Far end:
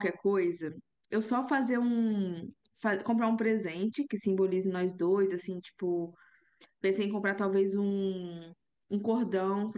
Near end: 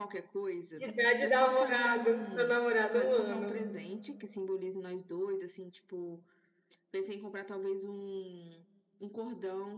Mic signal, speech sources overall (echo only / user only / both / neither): both